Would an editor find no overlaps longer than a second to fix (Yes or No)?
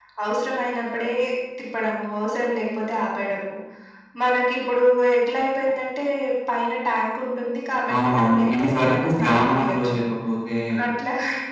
No